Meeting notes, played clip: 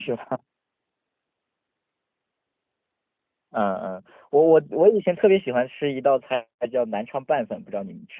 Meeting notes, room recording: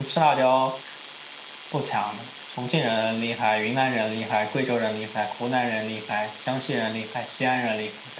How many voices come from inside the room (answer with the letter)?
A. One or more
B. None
A